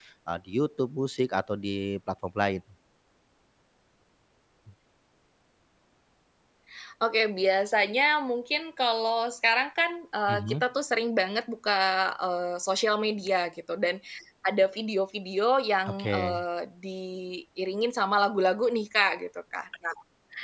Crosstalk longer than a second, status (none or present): none